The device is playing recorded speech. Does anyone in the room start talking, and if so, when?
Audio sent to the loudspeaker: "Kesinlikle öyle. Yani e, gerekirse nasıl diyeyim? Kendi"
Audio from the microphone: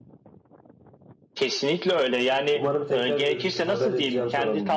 2.5 s

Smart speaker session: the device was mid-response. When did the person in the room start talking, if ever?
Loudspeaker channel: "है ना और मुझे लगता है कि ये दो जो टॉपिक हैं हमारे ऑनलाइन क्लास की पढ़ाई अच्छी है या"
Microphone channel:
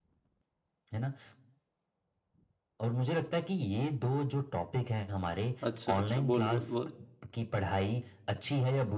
5.7 s

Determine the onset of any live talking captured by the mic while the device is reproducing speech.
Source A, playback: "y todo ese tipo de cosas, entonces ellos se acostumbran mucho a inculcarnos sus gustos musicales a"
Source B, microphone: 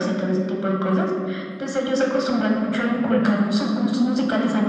3.0 s

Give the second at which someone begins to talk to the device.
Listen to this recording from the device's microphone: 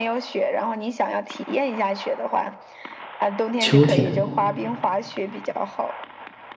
3.6 s

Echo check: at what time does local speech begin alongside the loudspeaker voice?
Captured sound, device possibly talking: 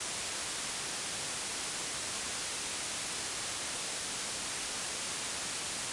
none

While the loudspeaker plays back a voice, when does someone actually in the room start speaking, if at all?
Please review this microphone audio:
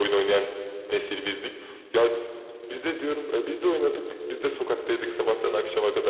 none

